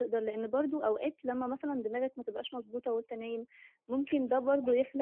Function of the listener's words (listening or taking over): listening